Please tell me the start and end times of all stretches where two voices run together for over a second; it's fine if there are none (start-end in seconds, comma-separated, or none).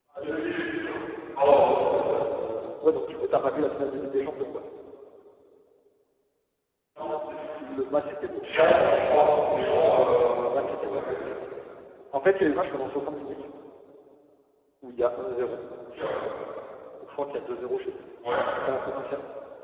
none